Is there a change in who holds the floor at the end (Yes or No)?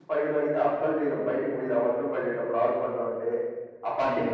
Yes